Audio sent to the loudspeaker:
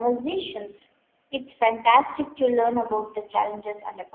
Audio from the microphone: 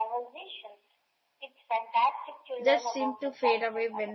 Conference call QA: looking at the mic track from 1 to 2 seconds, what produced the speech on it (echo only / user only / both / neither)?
echo only